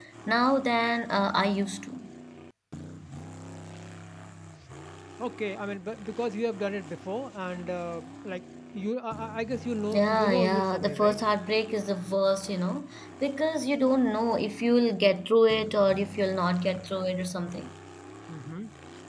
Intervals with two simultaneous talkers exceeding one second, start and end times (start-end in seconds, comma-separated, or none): 9.9-11.2